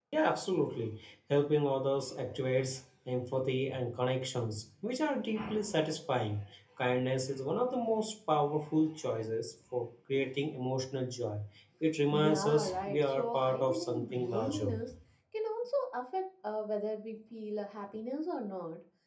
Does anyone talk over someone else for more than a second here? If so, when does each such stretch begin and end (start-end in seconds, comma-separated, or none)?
12.1-14.7